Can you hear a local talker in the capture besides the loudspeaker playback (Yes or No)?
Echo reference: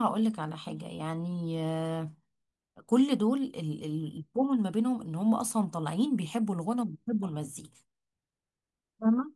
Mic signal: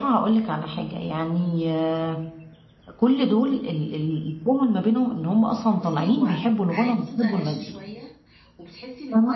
Yes